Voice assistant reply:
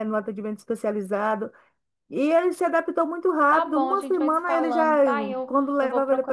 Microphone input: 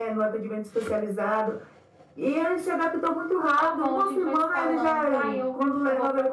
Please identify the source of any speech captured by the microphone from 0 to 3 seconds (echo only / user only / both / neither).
echo only